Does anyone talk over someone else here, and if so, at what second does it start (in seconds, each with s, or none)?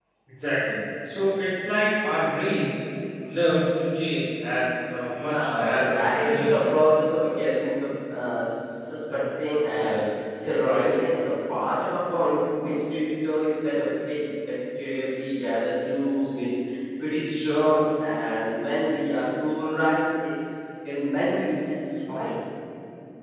5.3 s